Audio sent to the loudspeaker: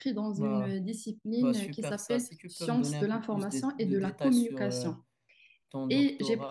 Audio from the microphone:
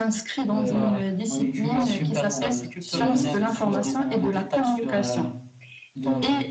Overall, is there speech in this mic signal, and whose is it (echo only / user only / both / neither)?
both